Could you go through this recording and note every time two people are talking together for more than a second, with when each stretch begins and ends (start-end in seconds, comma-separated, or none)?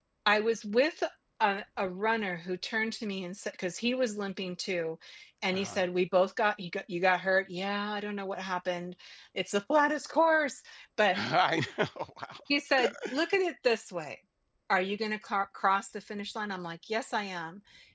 none